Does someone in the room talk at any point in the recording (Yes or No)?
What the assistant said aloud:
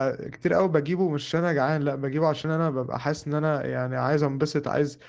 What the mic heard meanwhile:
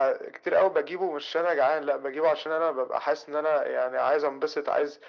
No